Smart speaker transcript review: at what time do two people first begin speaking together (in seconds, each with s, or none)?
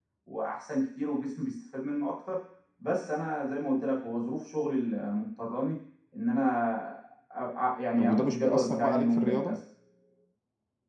8.0 s